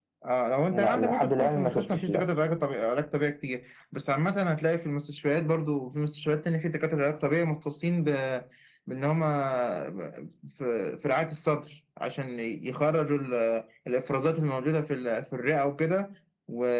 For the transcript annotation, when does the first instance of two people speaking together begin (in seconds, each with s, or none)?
0.7 s